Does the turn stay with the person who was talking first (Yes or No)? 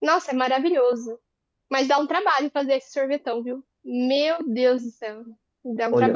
No